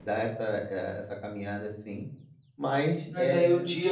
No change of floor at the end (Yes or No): No